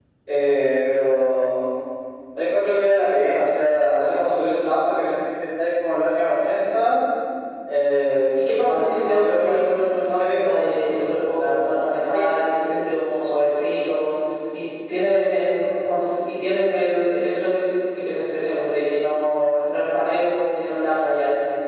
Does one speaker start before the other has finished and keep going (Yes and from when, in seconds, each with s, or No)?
Yes, from 8.5 s